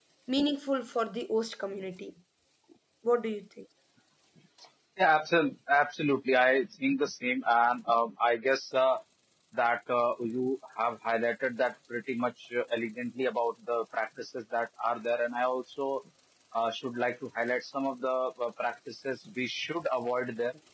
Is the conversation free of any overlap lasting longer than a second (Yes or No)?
Yes